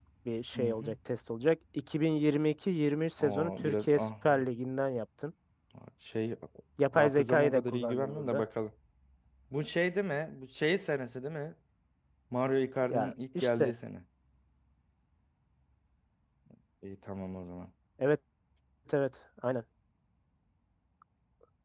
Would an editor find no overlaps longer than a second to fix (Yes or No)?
No